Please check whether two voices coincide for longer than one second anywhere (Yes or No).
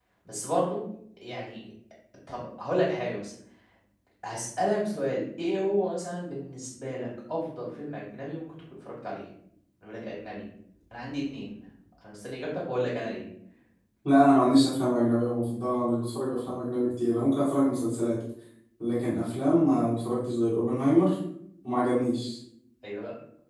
No